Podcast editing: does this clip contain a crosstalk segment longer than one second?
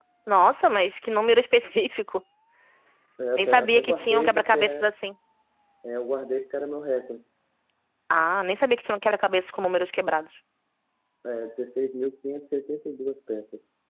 Yes, from 3.4 s

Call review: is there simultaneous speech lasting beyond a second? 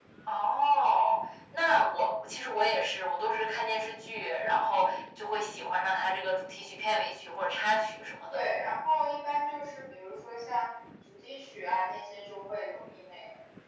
No

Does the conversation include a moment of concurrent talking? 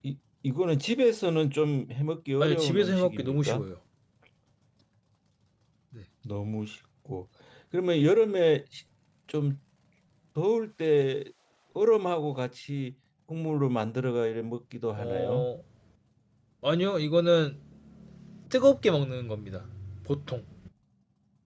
Yes, from 2.4 s

